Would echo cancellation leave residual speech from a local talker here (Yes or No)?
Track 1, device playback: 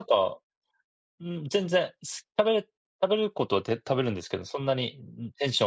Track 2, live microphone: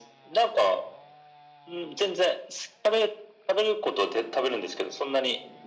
No